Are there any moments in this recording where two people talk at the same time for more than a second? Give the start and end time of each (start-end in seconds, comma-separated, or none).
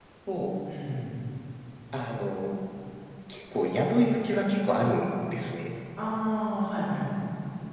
none